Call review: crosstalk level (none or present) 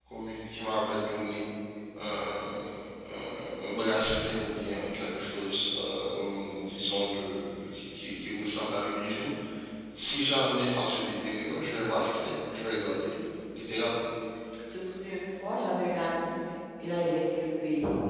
none